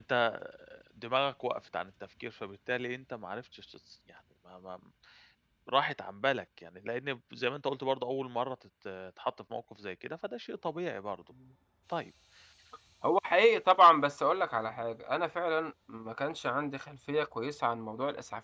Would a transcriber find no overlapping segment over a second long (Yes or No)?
Yes